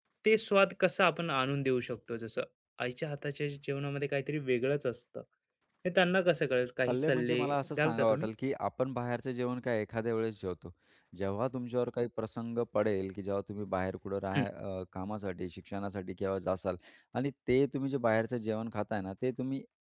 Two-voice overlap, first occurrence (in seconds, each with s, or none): 6.9 s